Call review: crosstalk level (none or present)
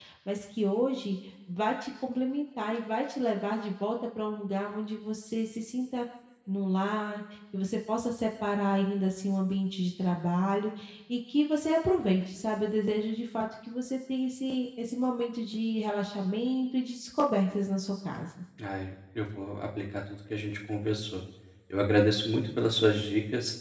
none